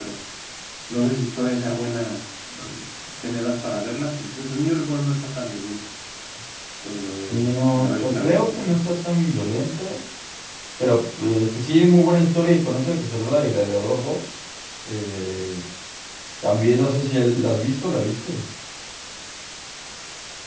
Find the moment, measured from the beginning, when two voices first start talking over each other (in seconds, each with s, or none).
7.3 s